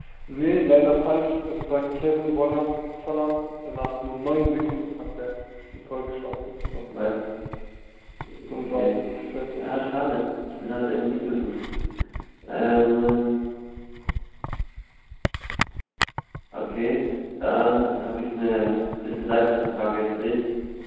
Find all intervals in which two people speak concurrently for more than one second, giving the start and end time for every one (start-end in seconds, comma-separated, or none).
none